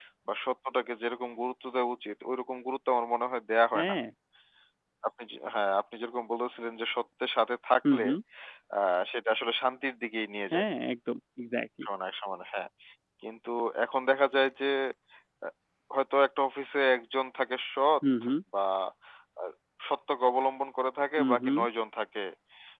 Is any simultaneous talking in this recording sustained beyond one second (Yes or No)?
No